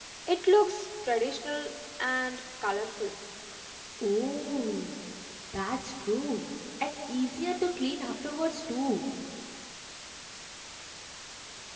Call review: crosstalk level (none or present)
none